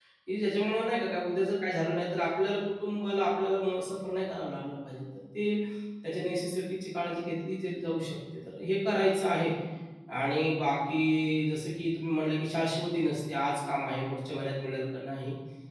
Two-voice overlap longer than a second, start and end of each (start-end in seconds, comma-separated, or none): none